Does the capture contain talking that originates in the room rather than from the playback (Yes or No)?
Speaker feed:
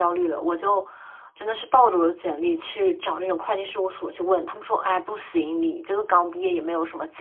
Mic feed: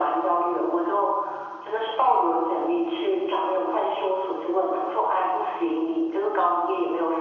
No